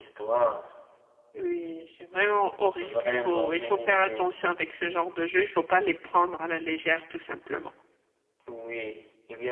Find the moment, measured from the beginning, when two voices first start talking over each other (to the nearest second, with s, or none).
3 s